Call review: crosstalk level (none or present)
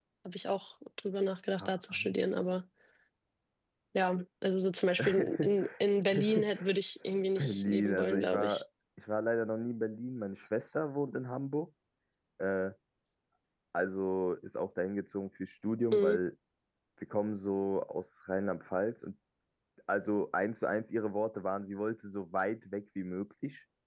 present